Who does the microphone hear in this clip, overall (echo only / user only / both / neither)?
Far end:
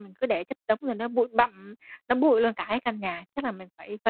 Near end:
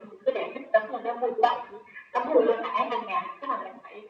echo only